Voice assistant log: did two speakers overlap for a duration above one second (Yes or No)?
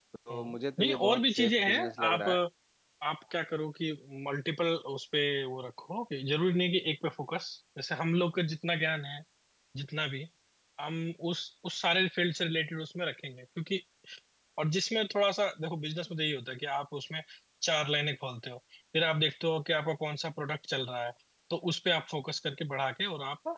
Yes